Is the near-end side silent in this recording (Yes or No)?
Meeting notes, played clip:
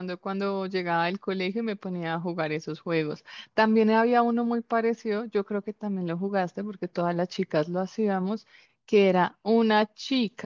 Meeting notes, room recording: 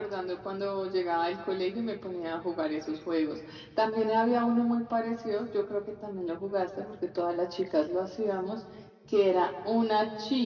Yes